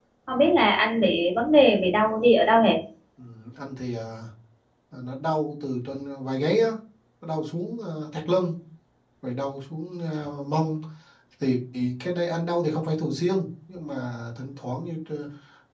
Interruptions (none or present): none